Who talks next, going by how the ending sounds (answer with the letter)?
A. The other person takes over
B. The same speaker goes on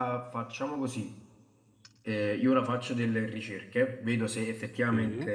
B